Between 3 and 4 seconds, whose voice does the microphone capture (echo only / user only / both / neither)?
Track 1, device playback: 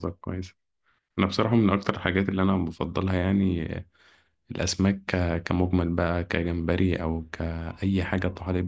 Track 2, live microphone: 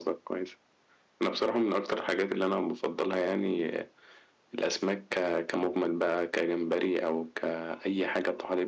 echo only